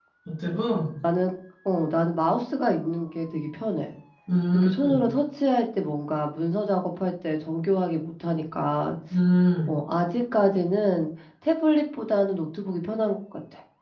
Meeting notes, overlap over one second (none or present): none